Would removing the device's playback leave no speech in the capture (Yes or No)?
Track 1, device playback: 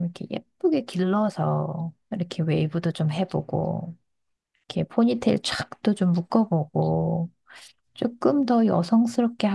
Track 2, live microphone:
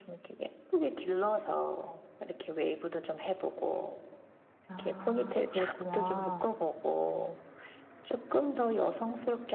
No